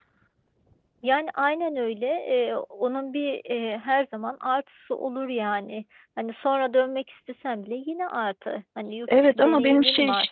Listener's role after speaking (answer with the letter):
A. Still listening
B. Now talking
B